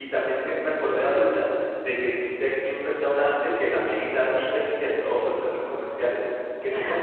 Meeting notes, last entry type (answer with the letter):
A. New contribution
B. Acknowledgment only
B